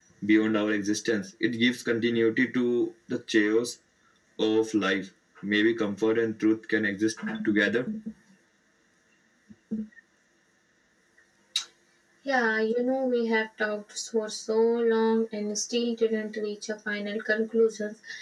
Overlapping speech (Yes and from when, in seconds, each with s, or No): No